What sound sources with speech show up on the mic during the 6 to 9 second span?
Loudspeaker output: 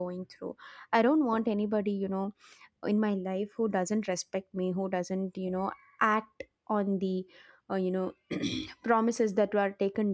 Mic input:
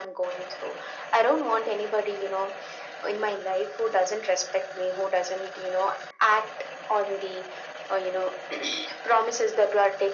echo only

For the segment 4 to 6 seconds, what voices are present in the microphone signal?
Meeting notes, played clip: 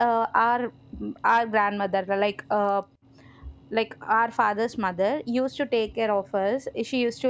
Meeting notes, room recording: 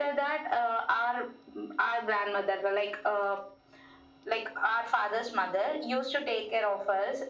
echo only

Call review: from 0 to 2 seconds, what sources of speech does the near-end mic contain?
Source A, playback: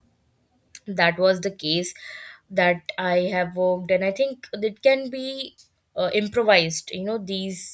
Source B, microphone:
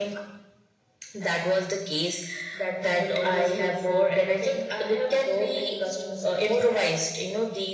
echo only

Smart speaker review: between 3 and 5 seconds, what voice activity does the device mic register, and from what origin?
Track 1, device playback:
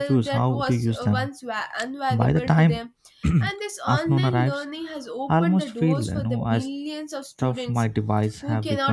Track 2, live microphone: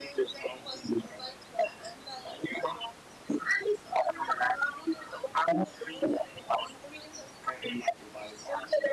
echo only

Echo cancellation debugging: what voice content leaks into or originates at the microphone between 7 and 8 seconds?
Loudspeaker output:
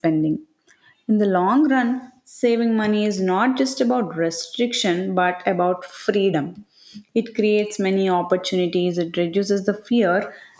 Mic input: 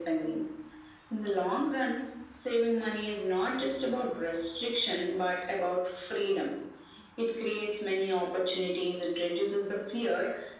echo only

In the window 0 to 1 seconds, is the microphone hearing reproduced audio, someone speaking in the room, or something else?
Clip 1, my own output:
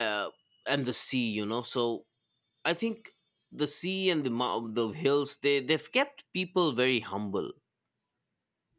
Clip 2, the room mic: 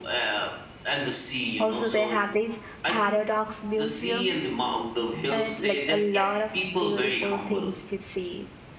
echo only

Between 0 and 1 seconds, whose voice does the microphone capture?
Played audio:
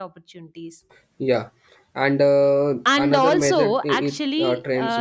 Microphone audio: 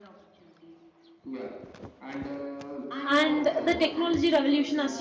echo only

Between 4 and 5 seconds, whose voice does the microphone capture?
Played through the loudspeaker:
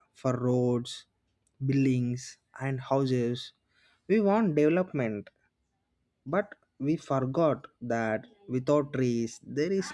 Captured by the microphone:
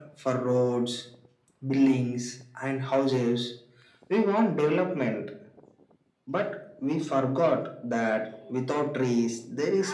echo only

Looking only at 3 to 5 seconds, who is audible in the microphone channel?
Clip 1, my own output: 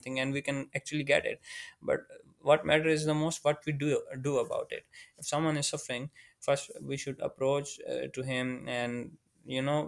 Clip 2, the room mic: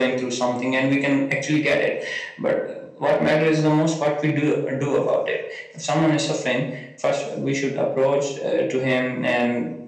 echo only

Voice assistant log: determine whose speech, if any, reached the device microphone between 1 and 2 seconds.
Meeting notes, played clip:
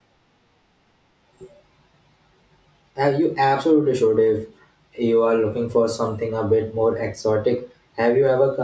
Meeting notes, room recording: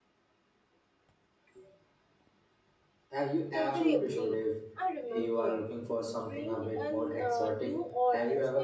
neither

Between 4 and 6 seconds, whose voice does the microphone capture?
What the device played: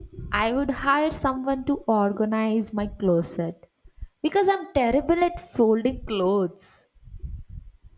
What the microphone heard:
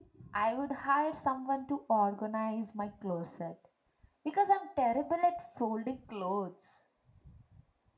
echo only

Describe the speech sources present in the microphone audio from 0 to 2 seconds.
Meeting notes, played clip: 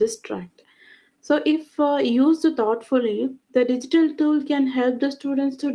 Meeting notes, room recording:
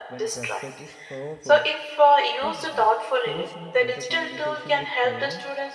both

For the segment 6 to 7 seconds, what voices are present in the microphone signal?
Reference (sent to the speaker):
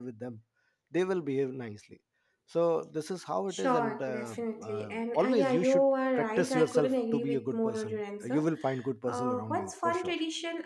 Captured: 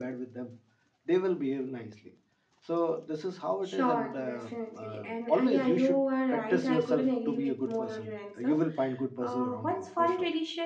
echo only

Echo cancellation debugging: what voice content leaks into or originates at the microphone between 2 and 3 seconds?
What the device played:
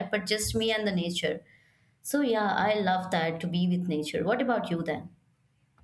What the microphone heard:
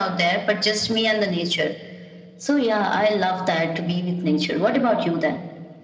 echo only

